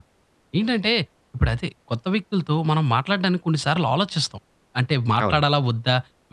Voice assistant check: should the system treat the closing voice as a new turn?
No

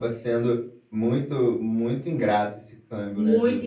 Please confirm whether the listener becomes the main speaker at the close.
Yes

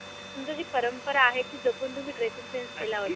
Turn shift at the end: Yes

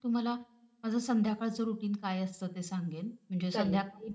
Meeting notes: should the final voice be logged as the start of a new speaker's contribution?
No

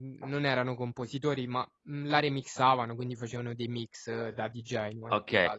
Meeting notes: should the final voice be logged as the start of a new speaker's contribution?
Yes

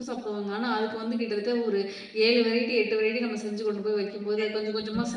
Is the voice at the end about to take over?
Yes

